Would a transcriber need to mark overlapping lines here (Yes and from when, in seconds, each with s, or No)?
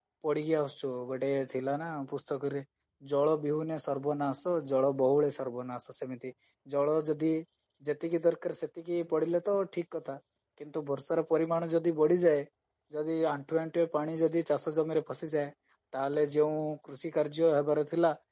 No